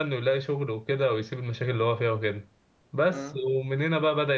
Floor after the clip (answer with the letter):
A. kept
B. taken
A